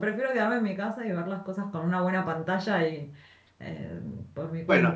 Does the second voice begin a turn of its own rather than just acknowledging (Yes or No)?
Yes